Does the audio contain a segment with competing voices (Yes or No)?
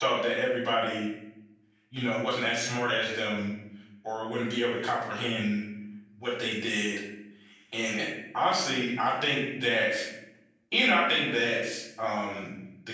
No